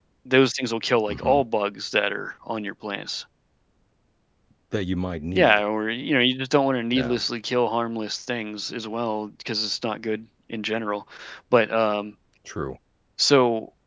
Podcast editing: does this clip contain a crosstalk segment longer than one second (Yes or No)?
No